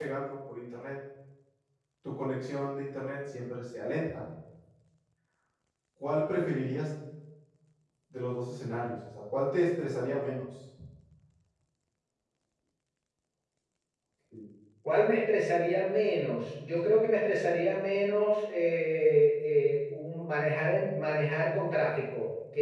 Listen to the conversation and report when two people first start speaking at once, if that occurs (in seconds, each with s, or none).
none